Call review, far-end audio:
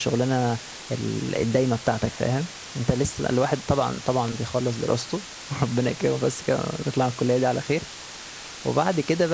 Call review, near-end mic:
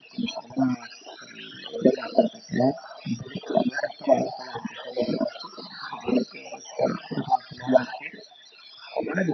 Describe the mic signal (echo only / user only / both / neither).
echo only